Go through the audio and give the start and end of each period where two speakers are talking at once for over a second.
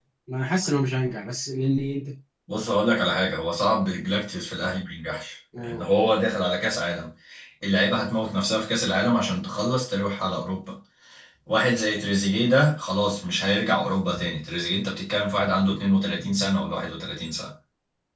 none

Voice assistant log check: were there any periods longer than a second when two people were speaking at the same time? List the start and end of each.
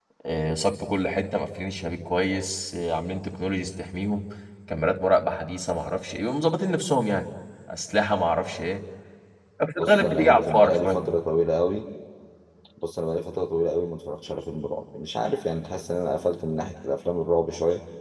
9.8-11.1

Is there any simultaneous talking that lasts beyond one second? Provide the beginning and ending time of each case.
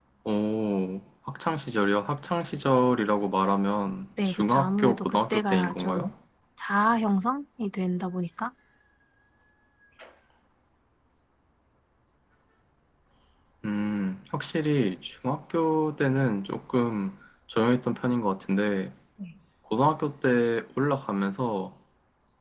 4.2-6.1

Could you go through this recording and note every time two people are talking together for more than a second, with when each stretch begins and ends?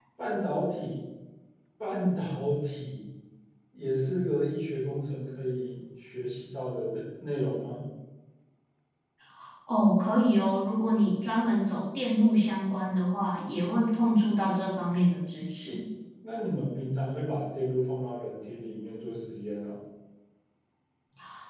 none

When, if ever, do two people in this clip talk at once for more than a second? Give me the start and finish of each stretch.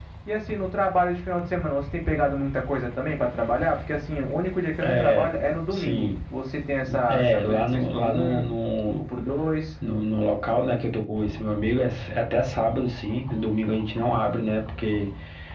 7.1-8.4

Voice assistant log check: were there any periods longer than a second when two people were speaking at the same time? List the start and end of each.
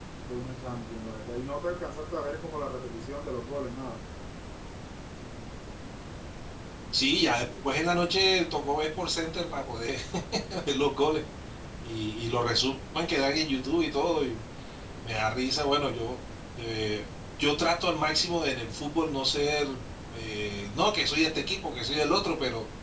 none

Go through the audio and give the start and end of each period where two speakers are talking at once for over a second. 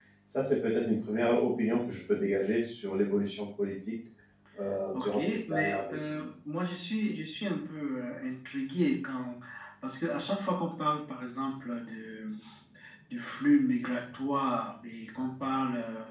4.9-6.3

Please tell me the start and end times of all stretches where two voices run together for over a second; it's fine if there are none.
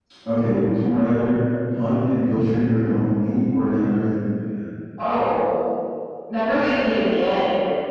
none

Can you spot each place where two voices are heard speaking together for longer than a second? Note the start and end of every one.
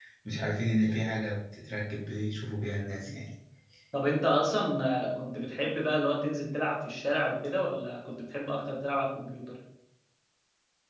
none

